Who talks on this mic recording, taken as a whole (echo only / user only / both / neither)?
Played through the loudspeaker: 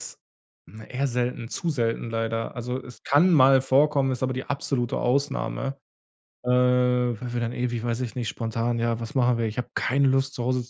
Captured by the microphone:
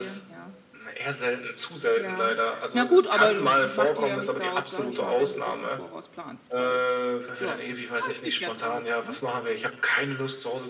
both